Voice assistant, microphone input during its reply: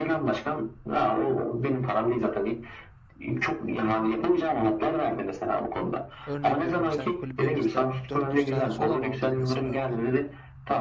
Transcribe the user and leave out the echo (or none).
Örnek veriyorum sen kulübe mesela 400 tane soda mı aldın mesela?